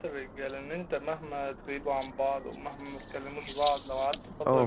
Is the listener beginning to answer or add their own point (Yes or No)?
Yes